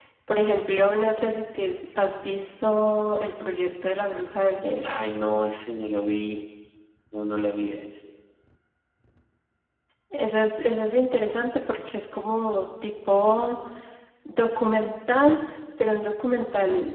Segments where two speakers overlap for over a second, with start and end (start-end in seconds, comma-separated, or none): none